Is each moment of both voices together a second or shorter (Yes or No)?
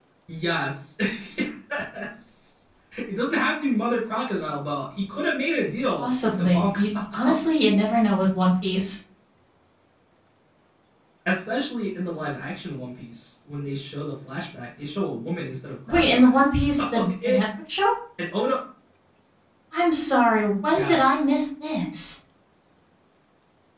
No